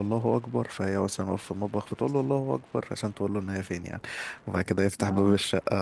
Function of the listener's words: listening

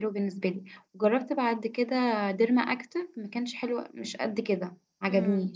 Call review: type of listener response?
taking over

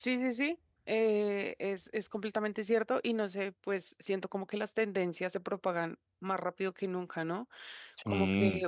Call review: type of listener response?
listening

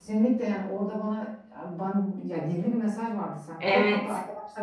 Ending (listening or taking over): listening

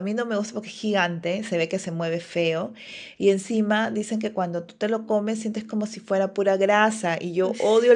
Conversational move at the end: listening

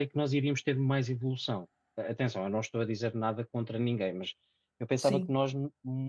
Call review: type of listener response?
listening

